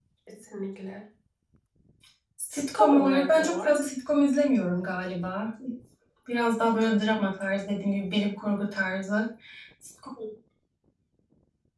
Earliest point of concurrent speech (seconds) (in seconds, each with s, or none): 2.5 s